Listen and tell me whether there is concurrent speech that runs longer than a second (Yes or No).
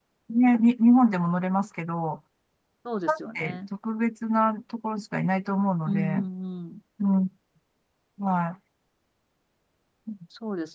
No